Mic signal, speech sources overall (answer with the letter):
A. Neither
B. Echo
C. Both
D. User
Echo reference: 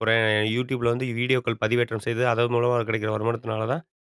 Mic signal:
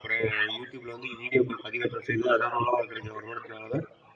B